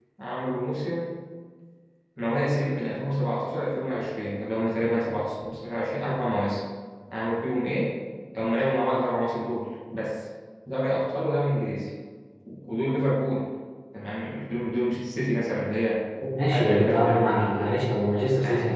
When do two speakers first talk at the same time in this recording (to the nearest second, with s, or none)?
16 s